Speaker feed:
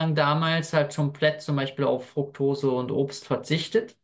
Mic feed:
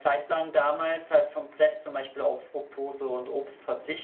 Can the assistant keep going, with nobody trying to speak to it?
Yes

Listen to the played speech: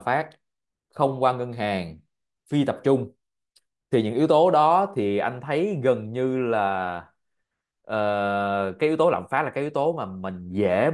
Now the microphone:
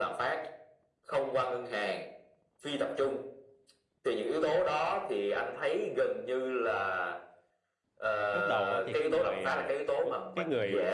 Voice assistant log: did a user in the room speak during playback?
Yes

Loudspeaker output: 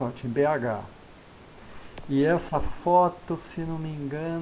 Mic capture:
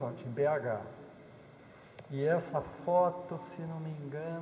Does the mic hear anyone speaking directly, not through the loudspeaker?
No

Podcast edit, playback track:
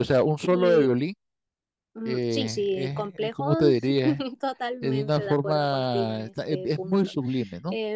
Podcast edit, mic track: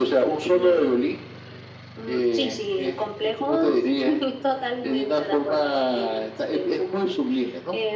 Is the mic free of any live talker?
Yes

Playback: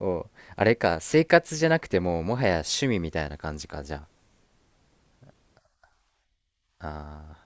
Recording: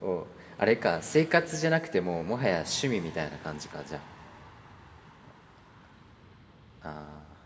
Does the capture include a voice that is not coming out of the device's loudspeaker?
No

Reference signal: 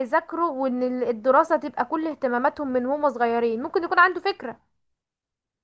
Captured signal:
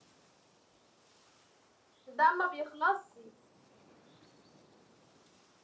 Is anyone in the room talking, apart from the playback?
Yes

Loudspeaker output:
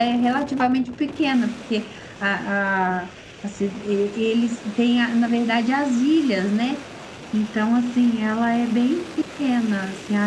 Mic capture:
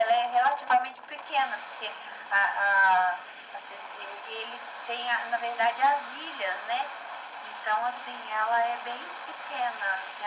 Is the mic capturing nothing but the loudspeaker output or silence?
Yes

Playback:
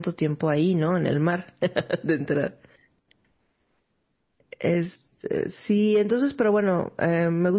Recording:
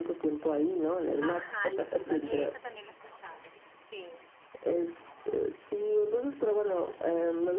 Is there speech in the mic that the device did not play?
Yes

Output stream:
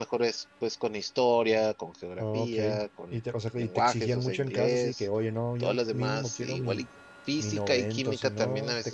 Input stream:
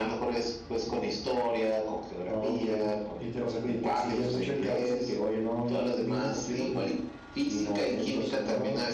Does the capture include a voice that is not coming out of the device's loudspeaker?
No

